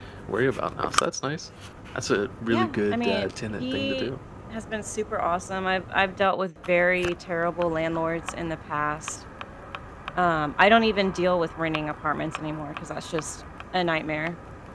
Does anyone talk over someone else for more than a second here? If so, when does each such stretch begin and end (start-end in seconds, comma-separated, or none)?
2.5-4.1